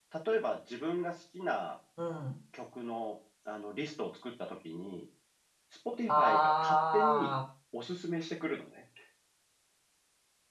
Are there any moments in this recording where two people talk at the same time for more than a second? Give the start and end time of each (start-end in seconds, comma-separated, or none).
6.1-7.3